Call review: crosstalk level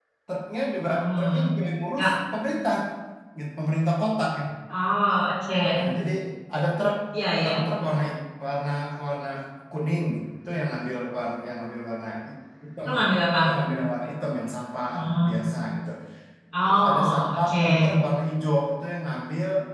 present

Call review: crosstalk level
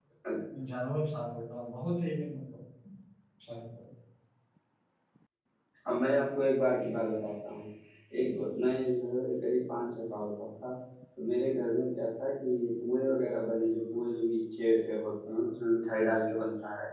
none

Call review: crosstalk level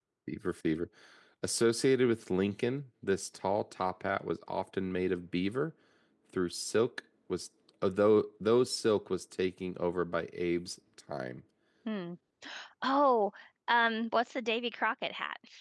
none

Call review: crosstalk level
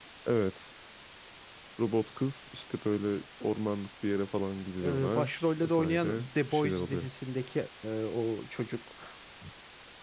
present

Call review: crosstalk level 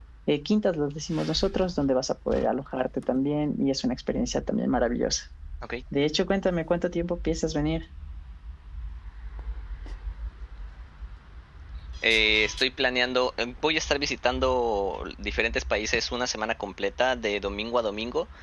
none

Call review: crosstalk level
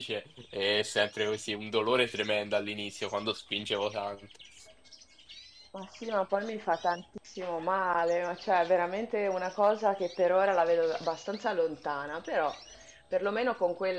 none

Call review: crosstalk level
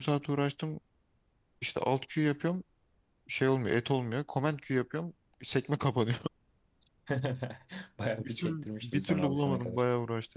present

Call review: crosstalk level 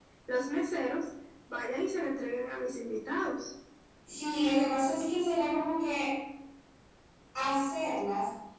none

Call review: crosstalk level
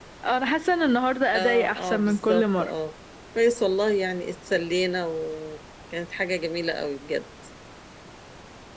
present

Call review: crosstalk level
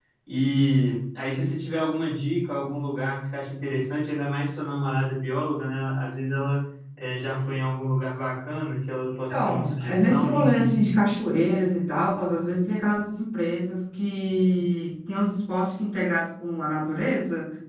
present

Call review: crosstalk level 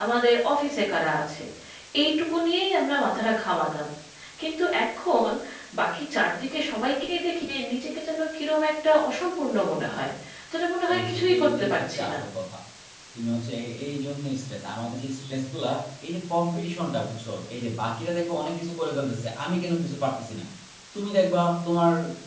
present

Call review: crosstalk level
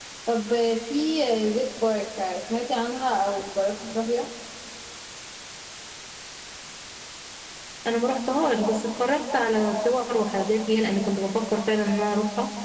none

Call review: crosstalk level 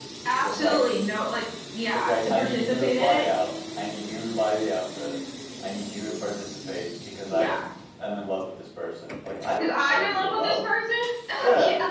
present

